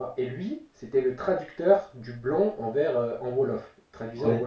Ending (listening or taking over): listening